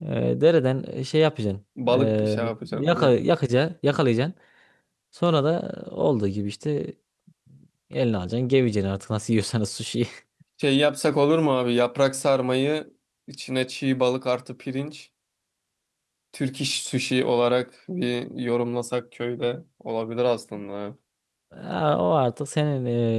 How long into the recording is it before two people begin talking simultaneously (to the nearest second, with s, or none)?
2 s